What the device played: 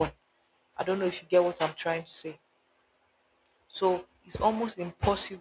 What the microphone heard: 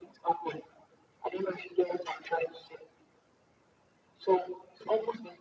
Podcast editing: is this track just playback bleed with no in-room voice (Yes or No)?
Yes